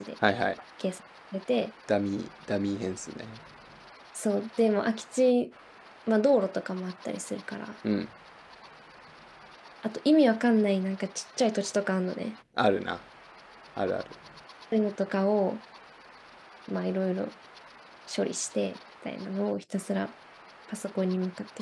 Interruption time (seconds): none

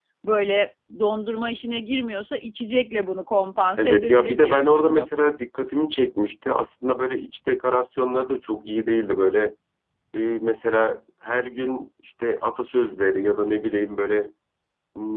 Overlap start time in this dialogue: 4 s

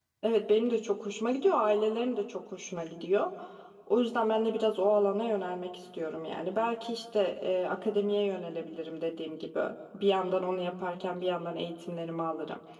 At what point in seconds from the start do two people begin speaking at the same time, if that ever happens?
none

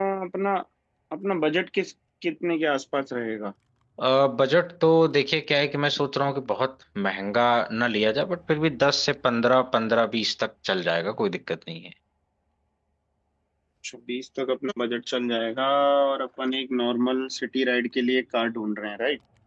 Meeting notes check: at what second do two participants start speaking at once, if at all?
none

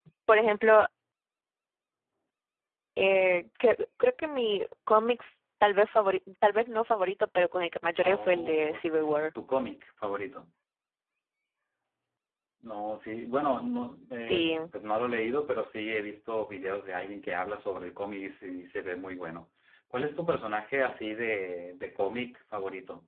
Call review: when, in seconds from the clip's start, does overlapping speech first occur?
8 s

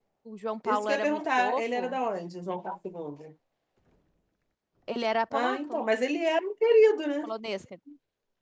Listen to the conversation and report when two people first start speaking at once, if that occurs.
1 s

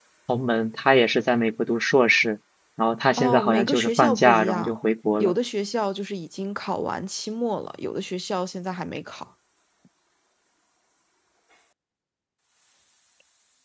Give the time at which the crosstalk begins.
3 s

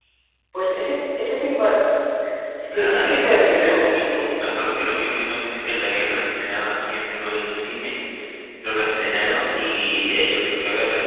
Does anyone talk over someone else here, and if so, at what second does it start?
3 s

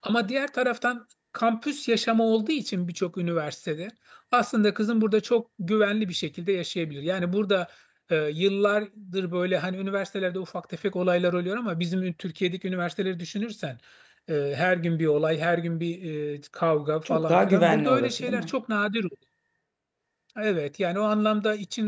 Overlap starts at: 17 s

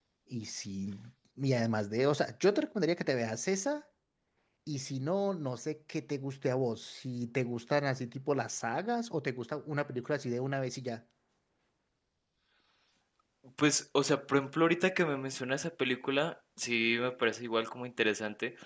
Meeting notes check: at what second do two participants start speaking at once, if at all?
none

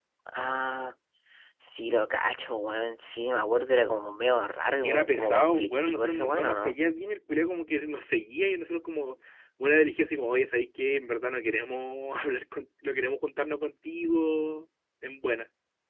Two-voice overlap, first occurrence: 5 s

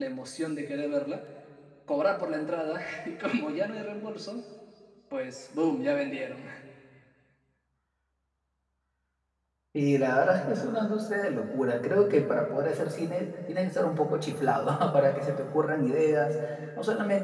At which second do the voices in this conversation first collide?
none

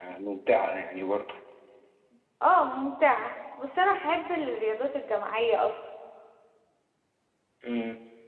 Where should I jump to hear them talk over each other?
none

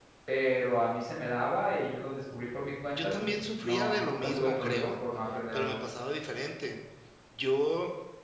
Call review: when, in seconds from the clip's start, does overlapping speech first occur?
3 s

